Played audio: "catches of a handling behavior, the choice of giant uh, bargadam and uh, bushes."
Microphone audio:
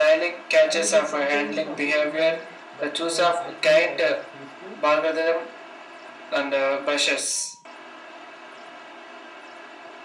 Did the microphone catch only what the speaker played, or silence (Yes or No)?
No